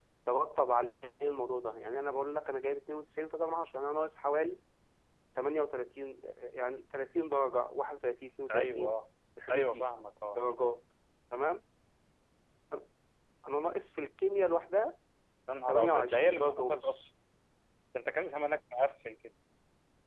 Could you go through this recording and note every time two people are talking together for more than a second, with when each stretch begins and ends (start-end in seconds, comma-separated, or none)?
15.7-17.0